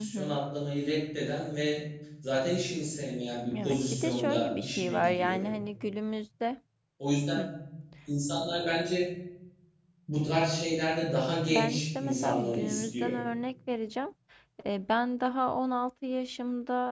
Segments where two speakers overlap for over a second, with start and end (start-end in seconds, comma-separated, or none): 3.6-5.5, 11.5-13.1